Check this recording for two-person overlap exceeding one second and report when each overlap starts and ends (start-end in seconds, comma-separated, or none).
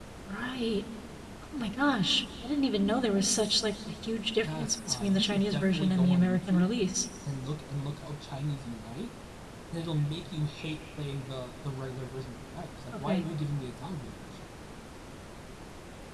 4.4-6.7